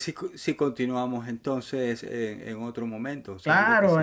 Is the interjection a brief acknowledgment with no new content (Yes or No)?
No